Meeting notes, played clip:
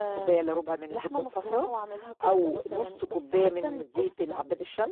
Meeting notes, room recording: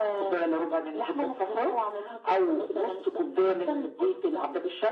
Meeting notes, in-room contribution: none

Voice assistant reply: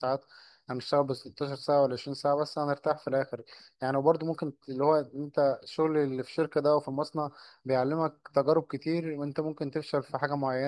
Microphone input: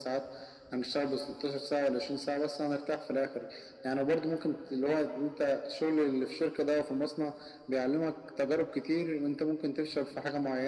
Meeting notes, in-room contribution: none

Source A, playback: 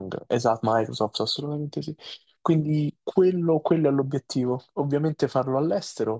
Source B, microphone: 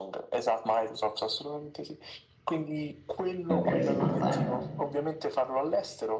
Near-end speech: present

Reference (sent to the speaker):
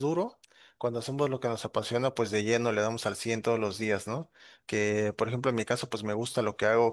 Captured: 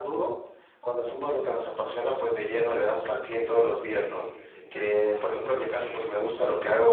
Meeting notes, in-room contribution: present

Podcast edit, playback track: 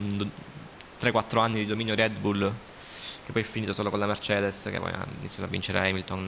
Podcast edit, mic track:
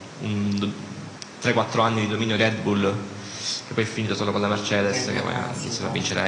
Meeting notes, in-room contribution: present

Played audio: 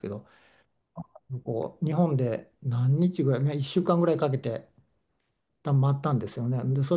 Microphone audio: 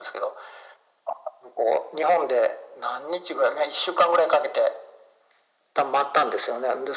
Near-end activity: none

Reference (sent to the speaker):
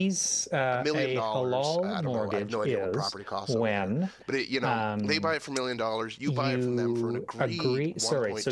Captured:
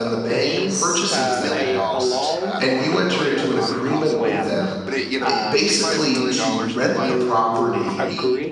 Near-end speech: present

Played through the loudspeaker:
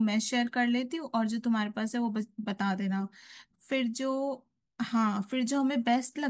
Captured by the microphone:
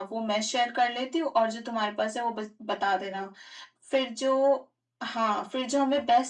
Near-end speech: none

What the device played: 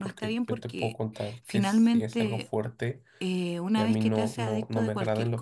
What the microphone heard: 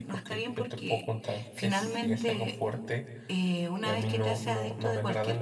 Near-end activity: none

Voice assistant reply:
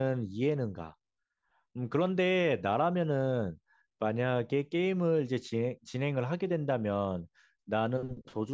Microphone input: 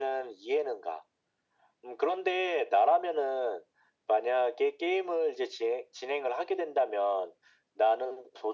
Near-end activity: none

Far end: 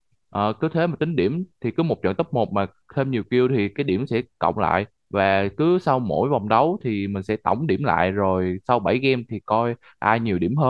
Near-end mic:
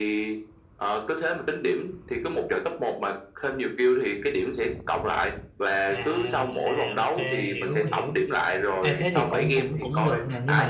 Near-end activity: present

